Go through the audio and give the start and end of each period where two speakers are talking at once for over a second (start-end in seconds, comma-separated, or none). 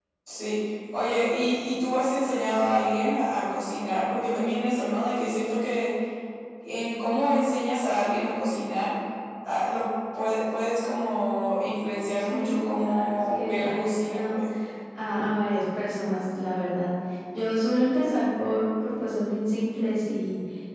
12.3-14.4